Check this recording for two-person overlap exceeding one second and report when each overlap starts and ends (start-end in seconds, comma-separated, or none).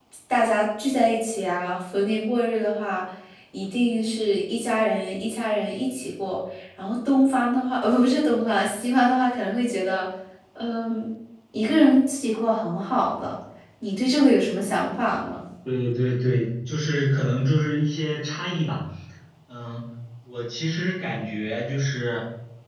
none